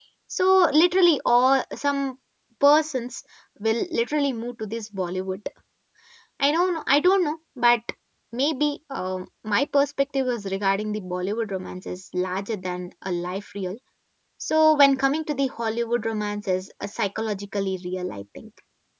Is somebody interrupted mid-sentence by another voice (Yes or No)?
No